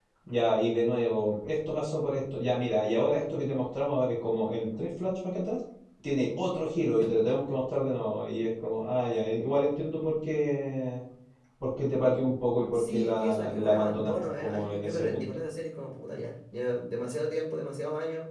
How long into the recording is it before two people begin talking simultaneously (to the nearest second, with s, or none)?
13 s